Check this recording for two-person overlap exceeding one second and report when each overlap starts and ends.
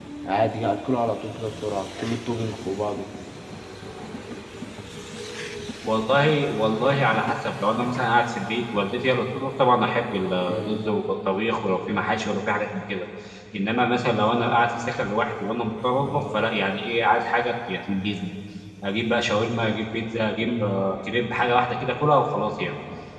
none

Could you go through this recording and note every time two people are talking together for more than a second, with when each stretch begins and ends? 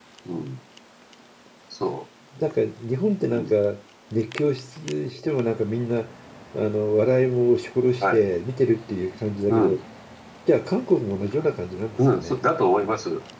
none

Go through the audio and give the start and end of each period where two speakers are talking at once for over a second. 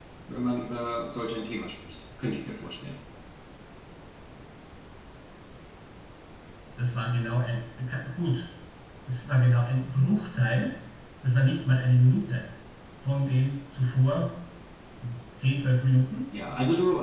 none

